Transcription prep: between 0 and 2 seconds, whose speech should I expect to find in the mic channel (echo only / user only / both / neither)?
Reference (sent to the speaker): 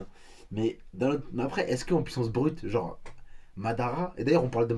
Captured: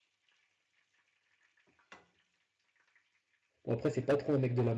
neither